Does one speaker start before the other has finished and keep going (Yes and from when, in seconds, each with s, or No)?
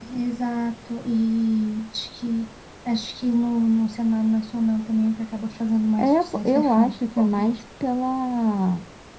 Yes, from 6.0 s